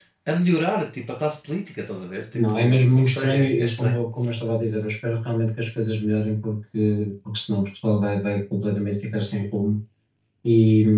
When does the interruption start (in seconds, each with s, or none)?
2.3 s